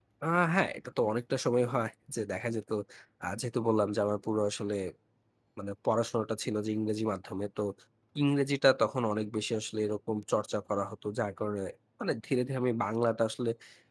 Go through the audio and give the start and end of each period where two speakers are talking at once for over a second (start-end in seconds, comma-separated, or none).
none